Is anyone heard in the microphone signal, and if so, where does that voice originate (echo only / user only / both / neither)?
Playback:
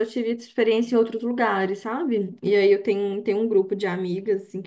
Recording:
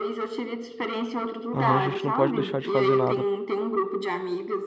both